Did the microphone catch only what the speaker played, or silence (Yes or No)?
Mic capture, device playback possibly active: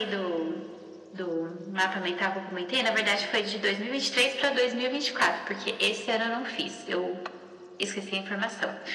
Yes